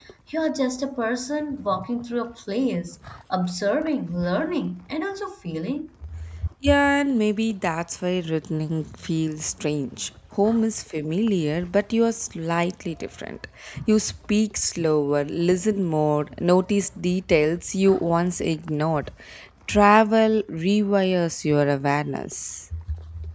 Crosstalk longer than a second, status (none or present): none